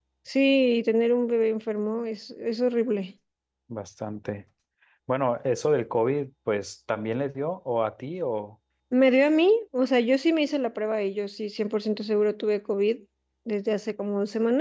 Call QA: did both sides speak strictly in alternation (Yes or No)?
Yes